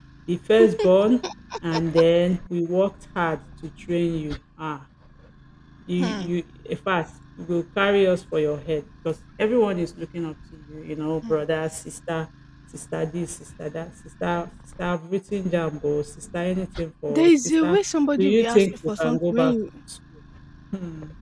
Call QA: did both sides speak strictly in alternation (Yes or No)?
No